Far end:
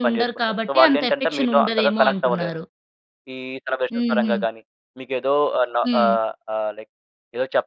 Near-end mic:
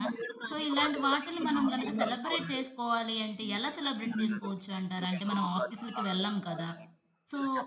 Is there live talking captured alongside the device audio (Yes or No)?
Yes